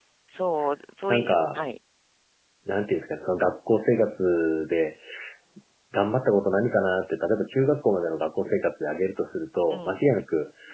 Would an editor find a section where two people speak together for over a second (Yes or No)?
No